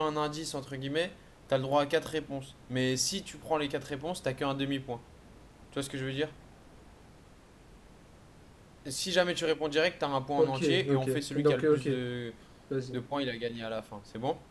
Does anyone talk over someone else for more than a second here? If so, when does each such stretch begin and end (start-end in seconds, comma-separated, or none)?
10.4-11.9